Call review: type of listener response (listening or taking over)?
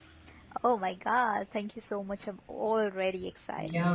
taking over